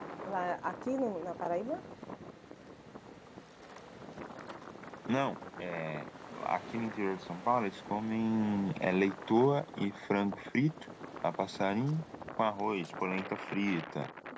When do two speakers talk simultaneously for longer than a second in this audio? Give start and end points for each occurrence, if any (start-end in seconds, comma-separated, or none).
none